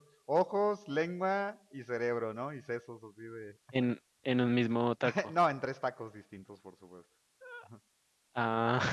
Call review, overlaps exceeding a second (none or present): none